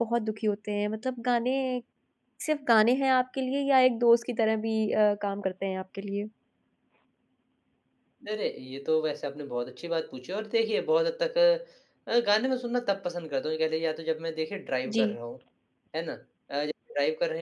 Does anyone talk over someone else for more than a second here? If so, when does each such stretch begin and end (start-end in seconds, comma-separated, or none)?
none